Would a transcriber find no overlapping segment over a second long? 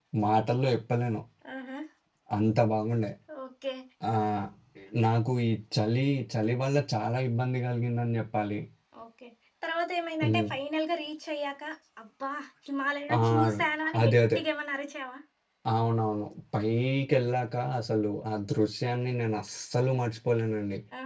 Yes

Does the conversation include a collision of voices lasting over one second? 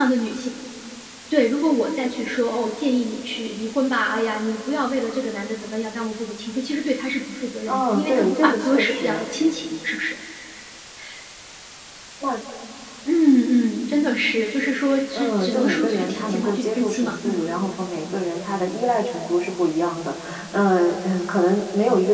Yes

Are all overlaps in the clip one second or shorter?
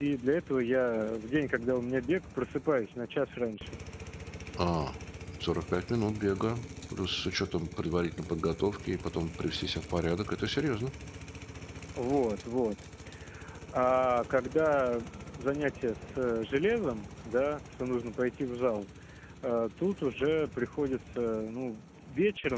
Yes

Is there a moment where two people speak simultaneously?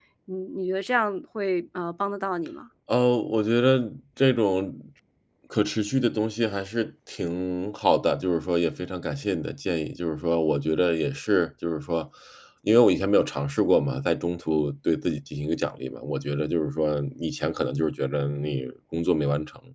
No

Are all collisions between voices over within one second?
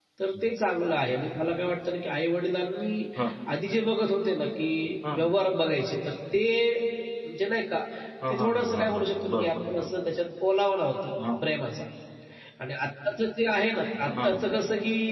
No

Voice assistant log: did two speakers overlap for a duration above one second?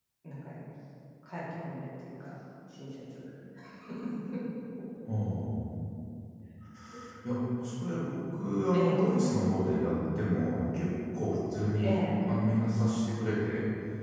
No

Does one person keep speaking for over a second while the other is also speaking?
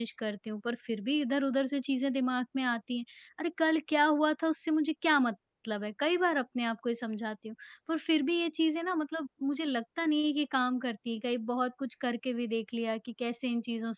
No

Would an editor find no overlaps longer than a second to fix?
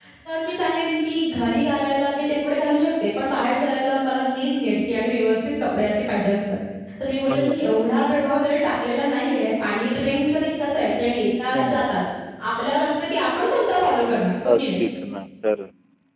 Yes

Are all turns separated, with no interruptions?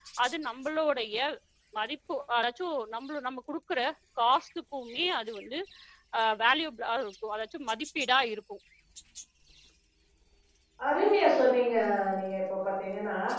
Yes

